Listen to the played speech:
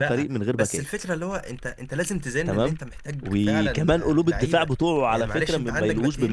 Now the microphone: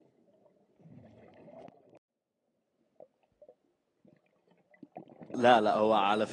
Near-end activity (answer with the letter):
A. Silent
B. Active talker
B